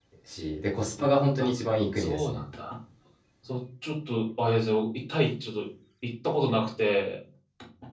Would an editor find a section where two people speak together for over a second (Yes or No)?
No